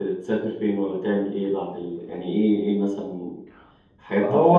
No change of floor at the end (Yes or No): No